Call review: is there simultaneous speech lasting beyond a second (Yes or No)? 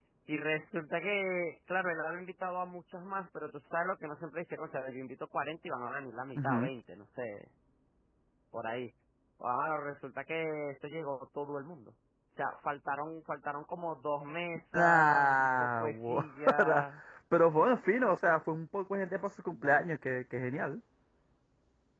Yes